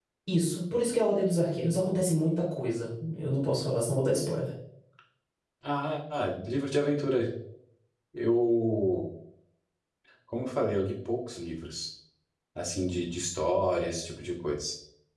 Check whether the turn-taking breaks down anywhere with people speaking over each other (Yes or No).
No